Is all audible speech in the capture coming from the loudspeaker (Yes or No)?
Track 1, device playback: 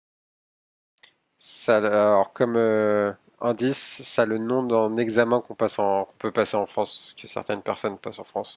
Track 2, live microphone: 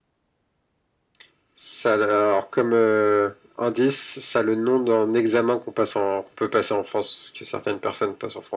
Yes